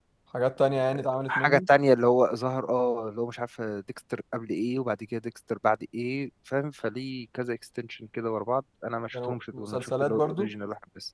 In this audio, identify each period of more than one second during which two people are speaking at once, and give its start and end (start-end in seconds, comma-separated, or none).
9.1-10.5